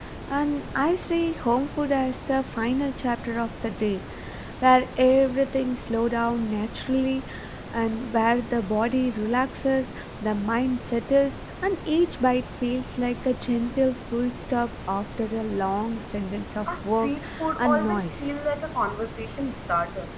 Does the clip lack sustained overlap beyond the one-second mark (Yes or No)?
No